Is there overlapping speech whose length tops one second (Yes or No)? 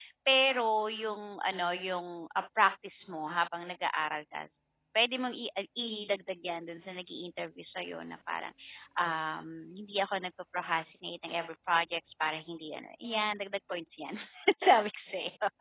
No